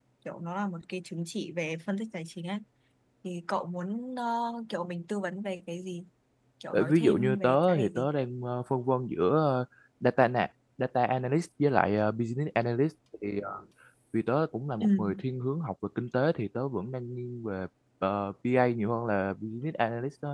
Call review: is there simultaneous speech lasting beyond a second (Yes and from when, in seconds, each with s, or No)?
Yes, from 6.7 s